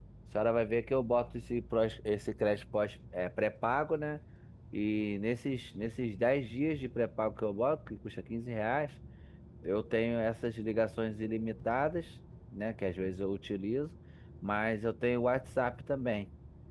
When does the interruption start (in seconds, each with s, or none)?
none